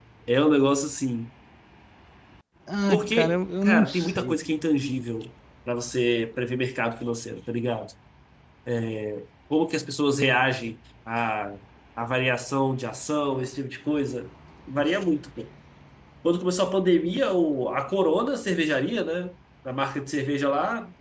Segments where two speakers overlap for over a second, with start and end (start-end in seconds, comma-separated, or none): 2.9-4.4